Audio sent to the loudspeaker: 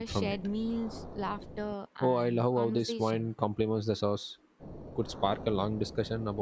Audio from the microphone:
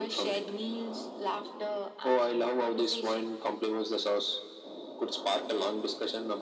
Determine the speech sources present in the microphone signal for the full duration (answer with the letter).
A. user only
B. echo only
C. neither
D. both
B